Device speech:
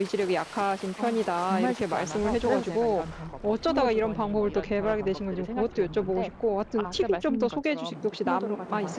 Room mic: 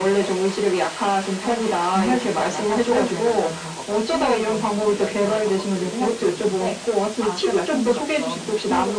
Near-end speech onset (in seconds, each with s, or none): none